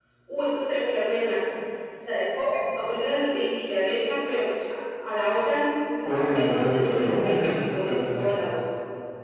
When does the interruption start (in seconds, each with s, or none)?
6.1 s